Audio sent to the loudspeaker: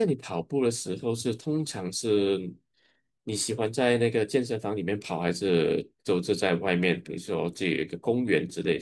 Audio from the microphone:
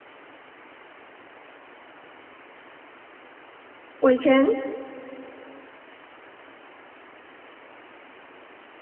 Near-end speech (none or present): present